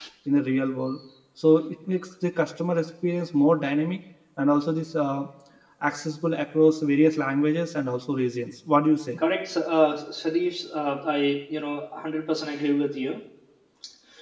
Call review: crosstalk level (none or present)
none